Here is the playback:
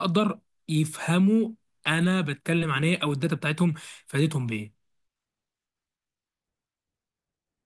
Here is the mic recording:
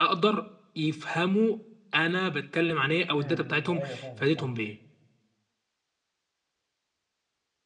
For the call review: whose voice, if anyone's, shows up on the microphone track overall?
both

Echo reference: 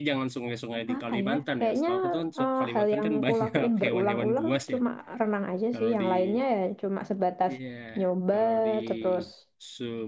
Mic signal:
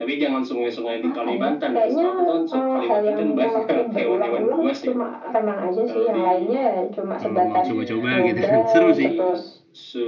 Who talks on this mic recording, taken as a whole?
both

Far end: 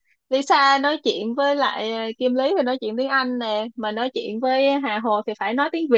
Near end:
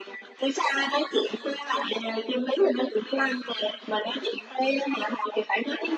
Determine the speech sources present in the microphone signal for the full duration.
echo only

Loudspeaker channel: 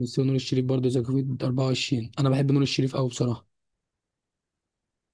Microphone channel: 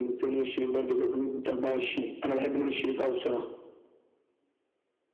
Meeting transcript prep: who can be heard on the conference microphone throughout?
echo only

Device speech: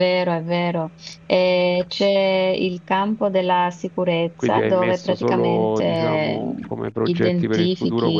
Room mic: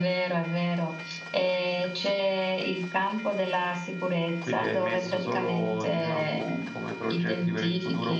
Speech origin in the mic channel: echo only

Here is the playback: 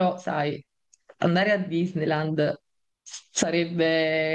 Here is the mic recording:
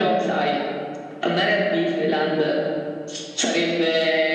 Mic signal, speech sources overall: echo only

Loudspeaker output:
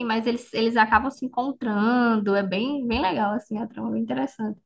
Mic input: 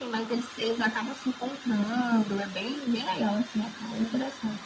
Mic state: echo only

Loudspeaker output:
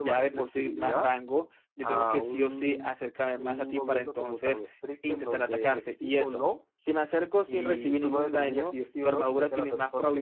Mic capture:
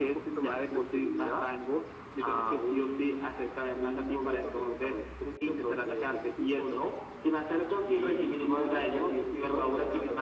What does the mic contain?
echo only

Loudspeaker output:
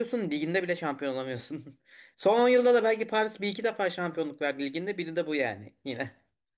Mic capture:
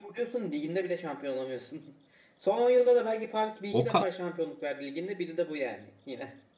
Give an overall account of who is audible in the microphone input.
both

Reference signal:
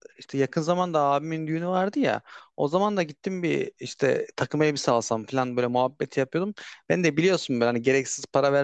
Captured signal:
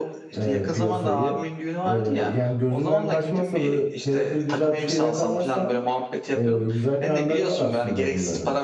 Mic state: both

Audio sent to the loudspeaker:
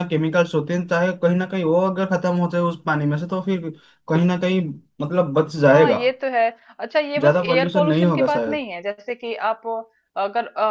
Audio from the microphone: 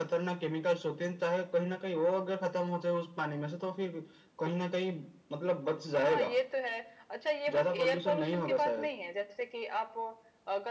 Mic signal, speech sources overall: echo only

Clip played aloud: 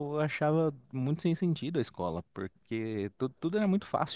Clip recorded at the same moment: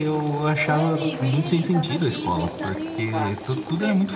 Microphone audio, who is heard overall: both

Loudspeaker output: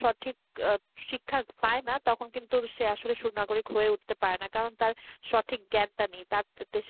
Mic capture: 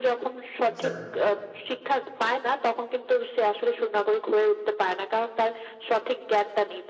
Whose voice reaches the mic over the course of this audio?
both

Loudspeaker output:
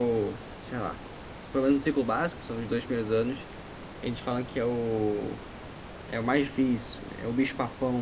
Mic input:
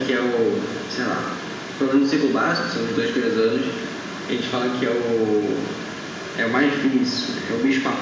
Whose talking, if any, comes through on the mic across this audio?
echo only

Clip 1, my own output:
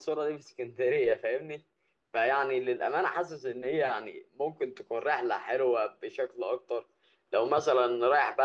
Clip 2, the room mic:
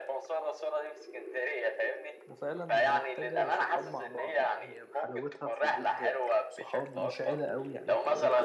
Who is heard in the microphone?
both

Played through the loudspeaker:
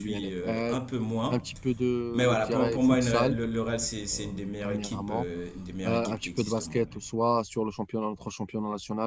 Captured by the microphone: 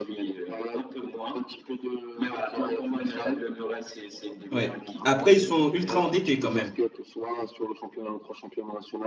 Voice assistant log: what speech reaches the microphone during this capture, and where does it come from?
both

